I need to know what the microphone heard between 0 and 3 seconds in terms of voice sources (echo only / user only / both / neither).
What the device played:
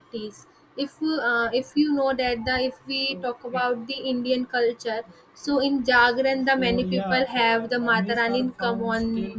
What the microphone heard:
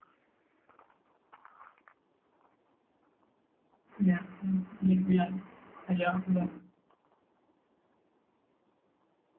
neither